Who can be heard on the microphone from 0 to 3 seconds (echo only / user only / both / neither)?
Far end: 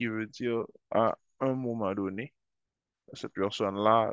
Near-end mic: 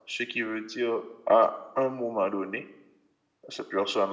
echo only